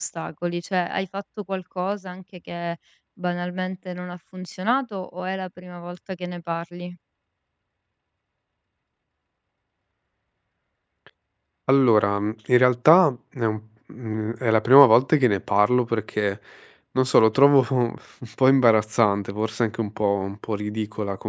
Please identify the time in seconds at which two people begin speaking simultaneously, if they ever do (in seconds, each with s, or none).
none